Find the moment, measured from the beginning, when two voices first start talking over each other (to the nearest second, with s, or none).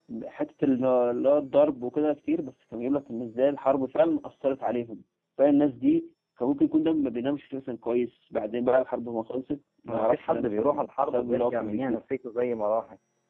10 s